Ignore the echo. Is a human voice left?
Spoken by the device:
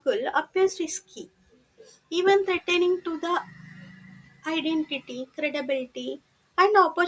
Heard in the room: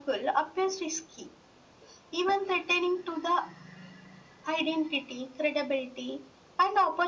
No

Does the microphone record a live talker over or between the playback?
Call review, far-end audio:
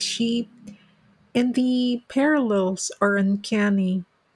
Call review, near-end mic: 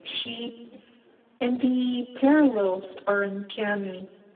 No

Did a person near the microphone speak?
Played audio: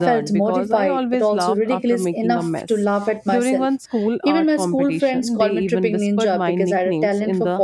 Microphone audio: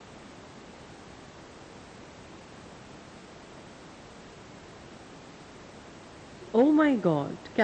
Yes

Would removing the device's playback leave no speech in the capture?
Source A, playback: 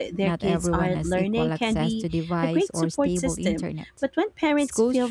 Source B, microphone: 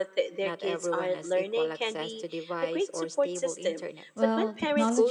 No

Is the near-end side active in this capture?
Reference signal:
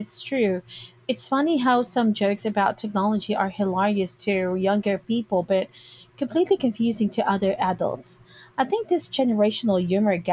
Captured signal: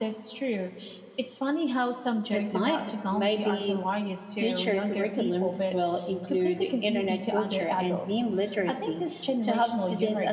Yes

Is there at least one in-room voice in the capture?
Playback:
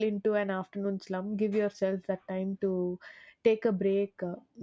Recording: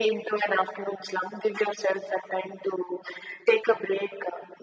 No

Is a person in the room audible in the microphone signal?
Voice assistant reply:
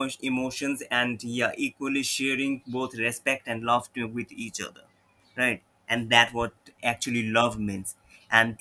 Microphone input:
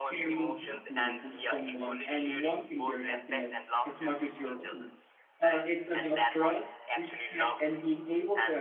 Yes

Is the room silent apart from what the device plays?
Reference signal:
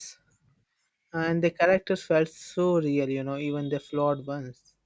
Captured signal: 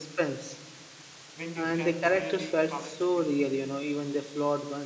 No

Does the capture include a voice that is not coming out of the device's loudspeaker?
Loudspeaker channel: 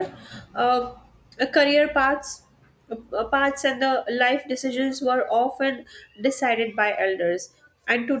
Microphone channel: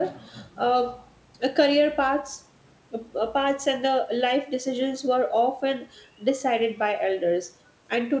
No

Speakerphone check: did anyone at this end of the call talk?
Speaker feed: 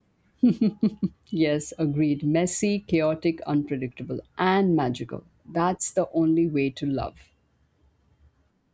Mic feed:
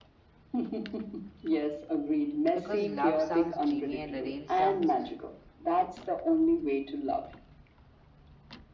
Yes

